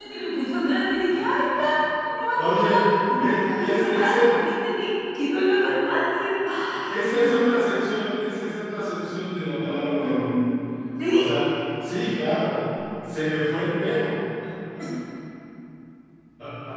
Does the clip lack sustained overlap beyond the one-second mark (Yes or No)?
No